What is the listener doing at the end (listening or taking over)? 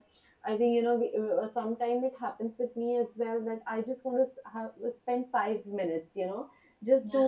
listening